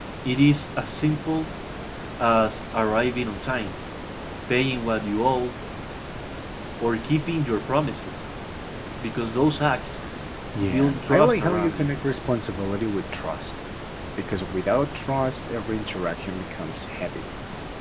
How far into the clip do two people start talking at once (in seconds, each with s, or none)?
10.7 s